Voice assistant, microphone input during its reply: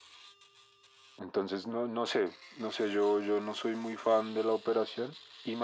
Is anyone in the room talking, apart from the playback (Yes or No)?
No